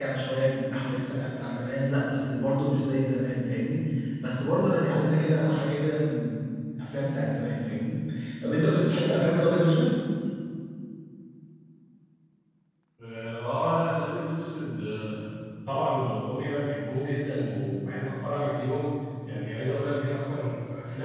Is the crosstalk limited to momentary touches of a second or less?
Yes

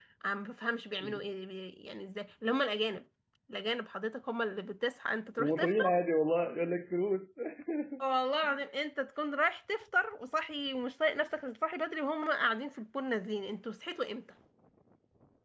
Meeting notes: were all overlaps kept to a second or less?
Yes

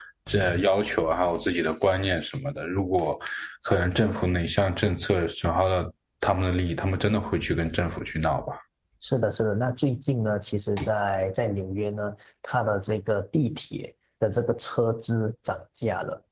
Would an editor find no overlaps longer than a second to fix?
Yes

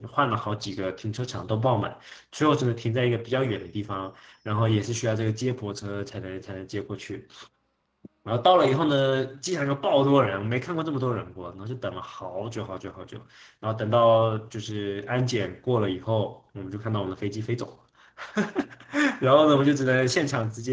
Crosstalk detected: No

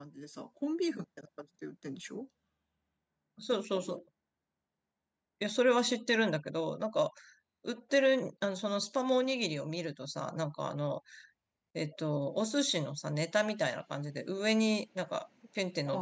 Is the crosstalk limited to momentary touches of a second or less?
Yes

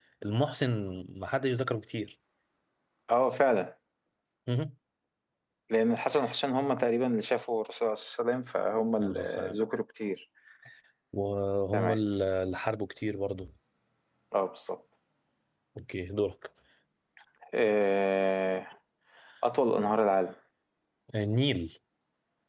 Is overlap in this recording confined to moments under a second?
Yes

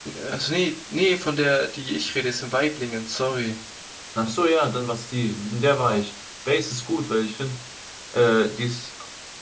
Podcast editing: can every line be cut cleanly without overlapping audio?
Yes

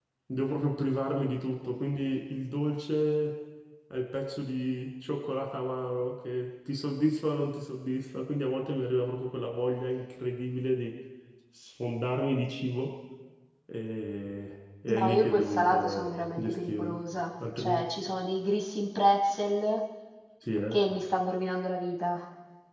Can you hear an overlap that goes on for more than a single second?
Yes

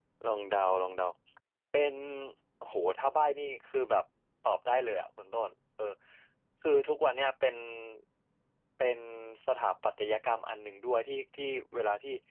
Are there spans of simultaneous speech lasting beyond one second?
No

